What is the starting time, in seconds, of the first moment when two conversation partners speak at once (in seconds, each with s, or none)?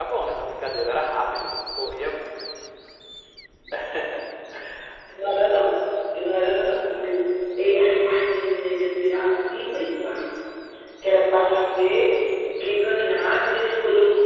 none